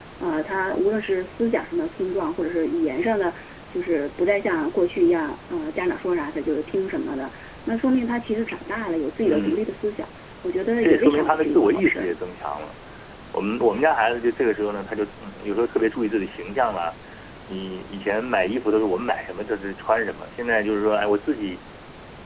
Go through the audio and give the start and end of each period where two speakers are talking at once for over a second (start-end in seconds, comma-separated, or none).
10.8-12.2